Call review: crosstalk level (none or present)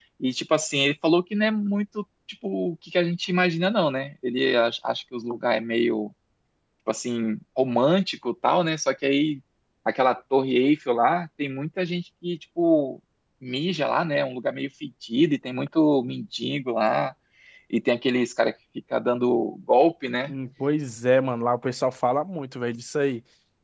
none